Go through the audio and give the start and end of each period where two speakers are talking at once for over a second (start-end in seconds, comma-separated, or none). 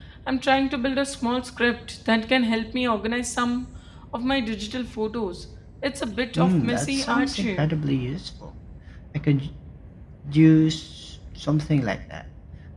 6.4-7.7